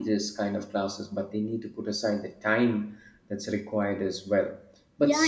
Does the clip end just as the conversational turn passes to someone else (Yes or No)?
Yes